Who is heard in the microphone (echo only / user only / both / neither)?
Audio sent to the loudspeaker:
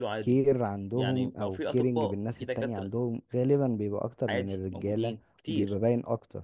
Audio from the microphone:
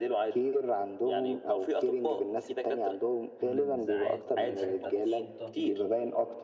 both